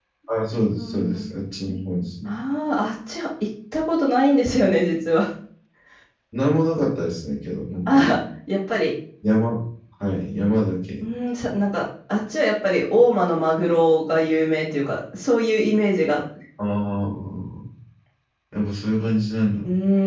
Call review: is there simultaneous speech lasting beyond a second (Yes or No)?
No